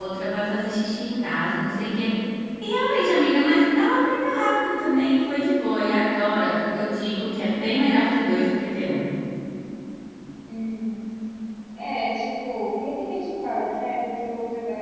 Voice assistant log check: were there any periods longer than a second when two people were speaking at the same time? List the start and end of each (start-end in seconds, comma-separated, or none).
none